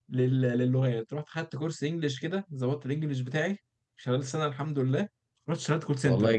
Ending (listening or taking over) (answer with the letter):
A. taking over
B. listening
A